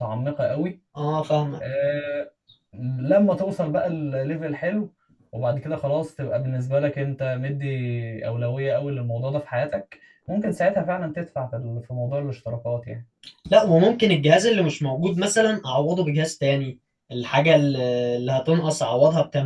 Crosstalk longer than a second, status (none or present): none